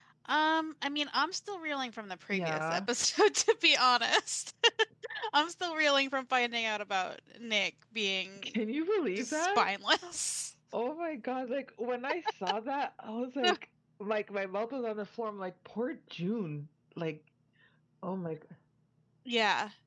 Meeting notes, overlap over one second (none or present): none